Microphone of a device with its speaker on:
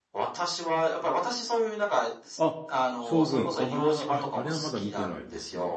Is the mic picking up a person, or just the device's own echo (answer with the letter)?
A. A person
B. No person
A